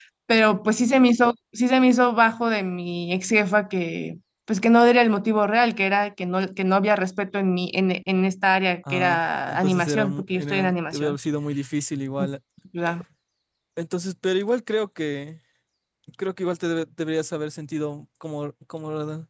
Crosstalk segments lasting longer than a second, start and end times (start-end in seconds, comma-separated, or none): 8.9-11.2